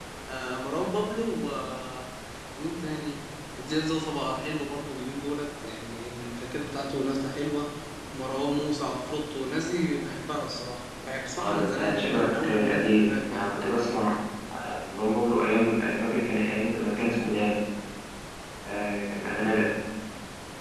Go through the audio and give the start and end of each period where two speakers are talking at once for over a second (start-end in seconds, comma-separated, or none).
11.4-13.5